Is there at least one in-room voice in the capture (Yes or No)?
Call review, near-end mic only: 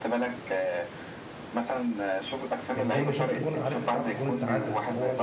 Yes